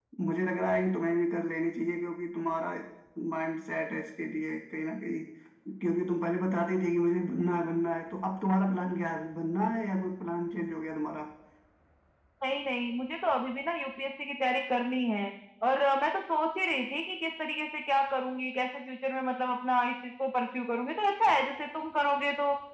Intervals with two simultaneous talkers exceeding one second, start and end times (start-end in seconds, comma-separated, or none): none